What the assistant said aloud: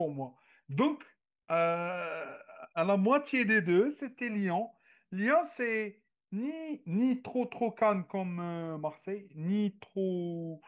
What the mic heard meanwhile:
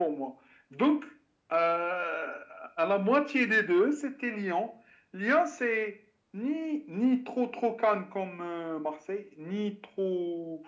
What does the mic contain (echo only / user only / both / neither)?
echo only